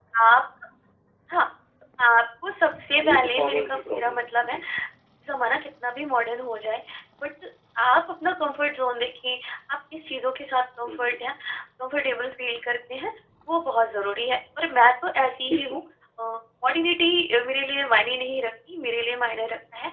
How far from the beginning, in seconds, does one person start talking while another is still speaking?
3.0 s

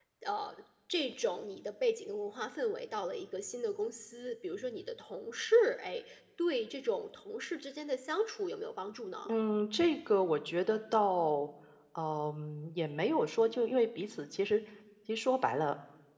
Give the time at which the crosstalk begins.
none

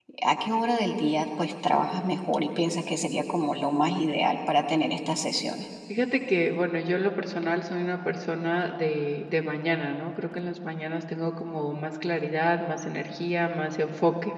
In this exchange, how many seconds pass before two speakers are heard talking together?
none

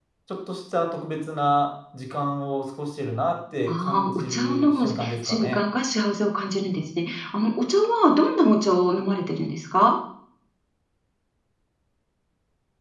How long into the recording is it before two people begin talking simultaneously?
3.7 s

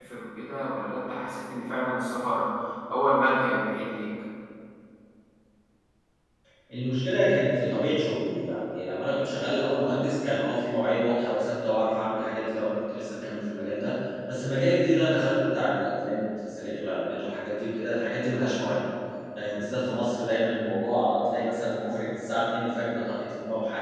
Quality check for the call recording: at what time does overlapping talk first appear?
none

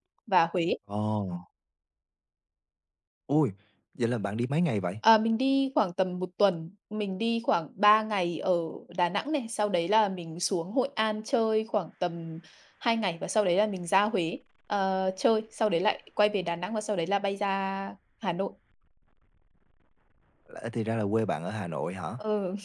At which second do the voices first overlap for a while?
none

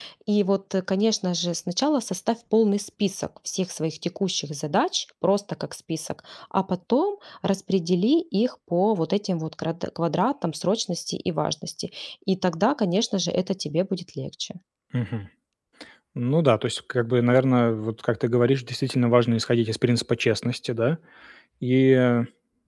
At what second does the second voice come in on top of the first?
none

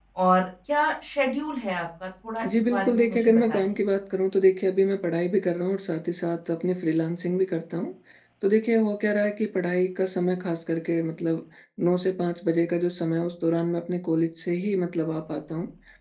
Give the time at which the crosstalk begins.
2.4 s

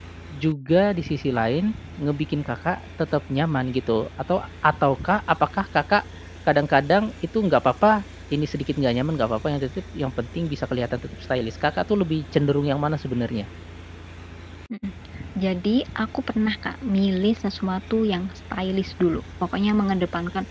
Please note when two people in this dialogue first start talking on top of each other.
none

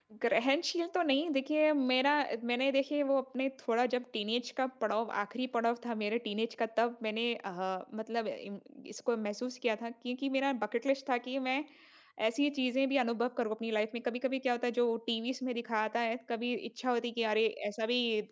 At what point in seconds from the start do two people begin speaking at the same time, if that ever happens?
none

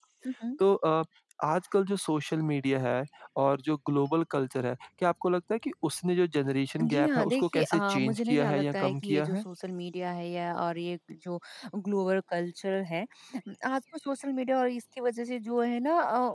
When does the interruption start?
6.8 s

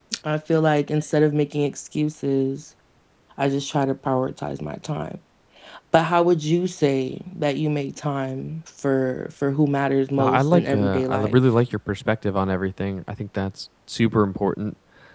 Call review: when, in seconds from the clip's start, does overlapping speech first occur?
10.2 s

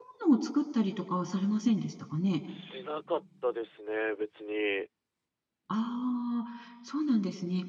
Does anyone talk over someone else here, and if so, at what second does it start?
none

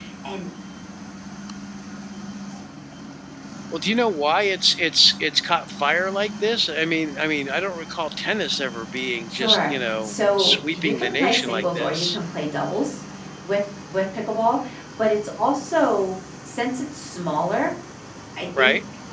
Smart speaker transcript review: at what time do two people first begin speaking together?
9.3 s

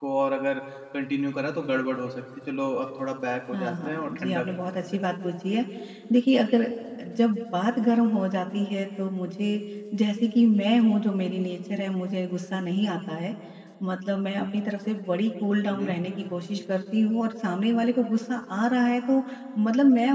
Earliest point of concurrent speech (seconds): 3.5 s

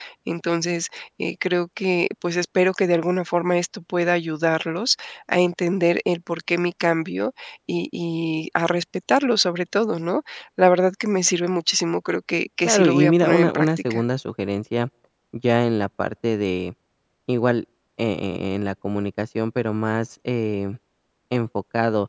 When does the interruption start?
12.6 s

